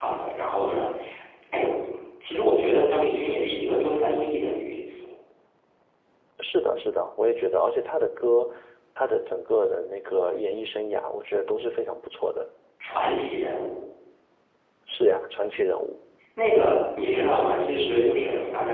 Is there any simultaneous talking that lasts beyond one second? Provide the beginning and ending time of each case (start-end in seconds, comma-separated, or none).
none